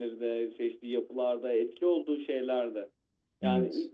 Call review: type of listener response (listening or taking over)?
listening